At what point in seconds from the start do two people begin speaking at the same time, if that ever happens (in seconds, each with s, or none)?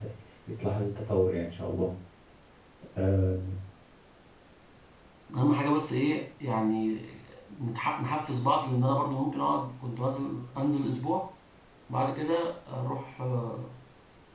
none